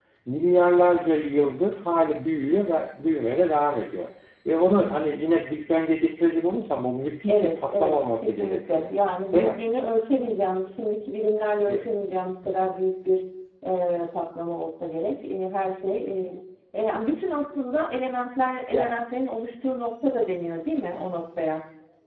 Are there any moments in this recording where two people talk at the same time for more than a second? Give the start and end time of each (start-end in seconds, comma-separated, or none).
7.3-8.9